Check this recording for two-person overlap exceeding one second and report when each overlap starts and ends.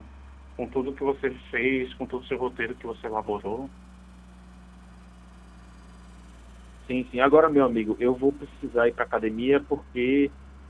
none

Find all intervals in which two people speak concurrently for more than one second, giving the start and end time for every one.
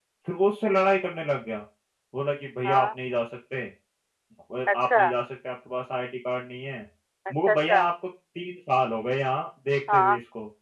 none

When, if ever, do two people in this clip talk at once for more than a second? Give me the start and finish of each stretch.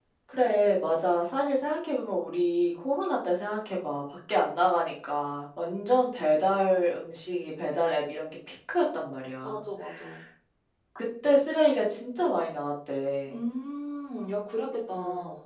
none

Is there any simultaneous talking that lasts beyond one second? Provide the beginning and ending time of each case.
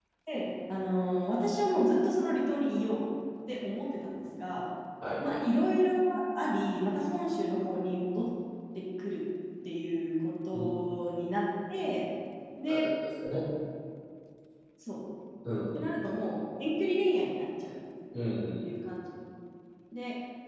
none

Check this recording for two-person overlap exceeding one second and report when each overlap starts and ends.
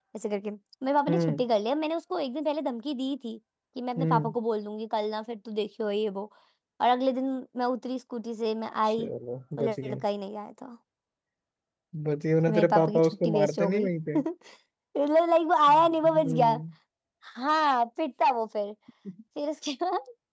12.5-14.2

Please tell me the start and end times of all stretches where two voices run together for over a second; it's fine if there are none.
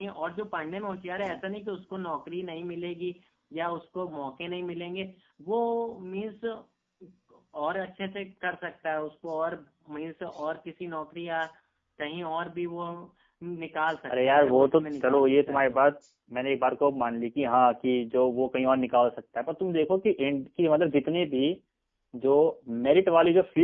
14.1-15.8

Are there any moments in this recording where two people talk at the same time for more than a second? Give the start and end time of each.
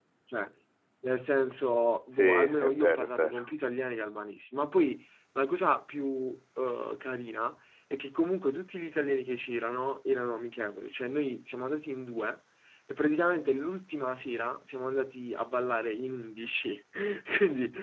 2.1-3.5

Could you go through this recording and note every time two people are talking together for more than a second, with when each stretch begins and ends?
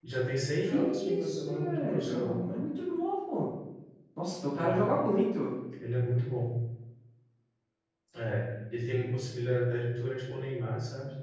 0.7-2.4

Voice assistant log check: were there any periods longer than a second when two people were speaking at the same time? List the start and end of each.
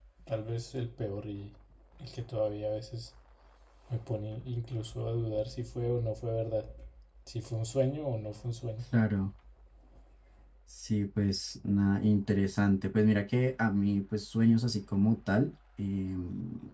none

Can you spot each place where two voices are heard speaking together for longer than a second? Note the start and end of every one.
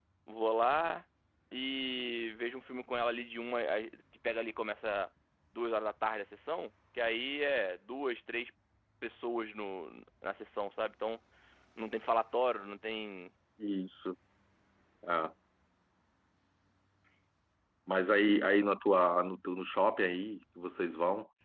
none

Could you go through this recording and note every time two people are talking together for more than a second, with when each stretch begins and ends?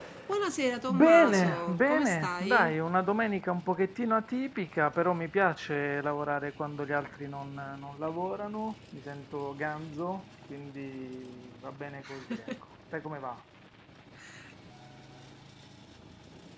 0.9-2.7

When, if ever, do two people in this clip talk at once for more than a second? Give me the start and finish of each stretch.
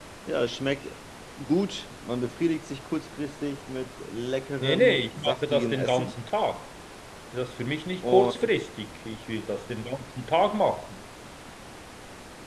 4.6-6.1

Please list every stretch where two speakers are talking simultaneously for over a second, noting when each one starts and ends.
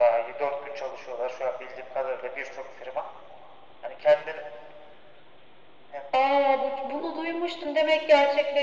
none

